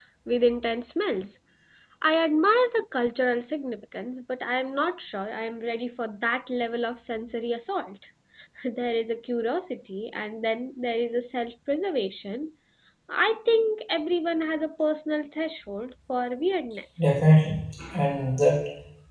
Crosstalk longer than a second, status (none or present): none